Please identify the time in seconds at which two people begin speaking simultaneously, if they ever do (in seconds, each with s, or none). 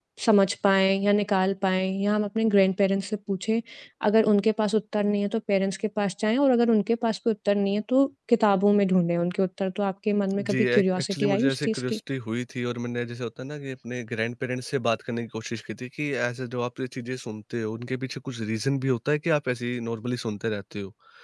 10.3 s